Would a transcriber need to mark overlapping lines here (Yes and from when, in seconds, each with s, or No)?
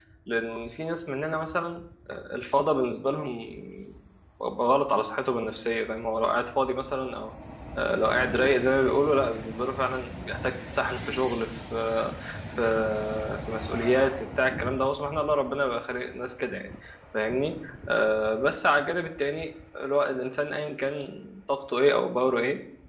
No